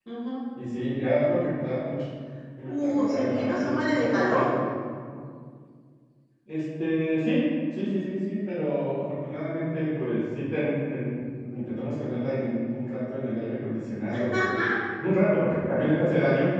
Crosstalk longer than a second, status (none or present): present